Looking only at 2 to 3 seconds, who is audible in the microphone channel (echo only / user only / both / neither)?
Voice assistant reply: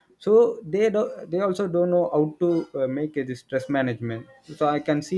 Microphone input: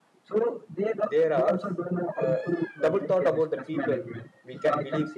both